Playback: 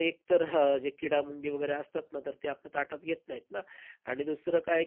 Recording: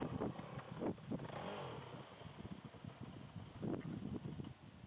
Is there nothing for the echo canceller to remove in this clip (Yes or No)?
Yes